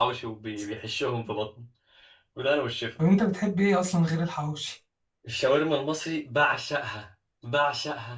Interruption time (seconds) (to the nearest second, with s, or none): none